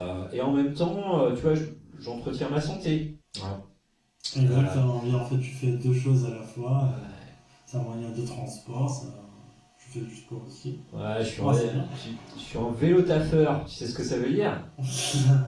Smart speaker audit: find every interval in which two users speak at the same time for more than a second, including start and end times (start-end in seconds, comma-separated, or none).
none